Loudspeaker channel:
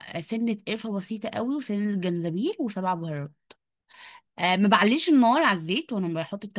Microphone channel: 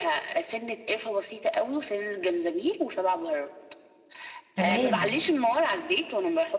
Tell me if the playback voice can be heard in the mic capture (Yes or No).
Yes